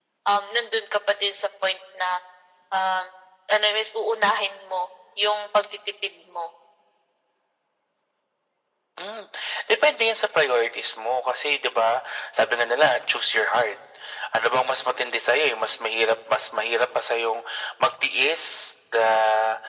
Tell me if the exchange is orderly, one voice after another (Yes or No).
Yes